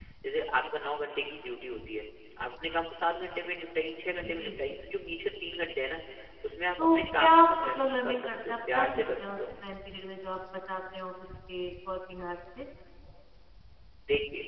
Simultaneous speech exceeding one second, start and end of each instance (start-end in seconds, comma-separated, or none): 6.8-9.5